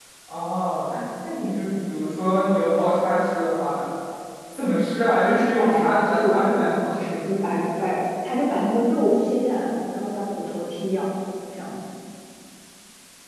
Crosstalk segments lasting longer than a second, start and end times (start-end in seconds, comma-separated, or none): 5.2-6.9